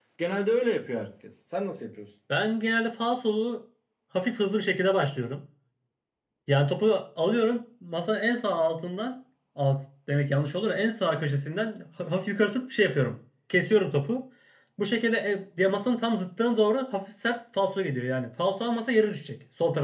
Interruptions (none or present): none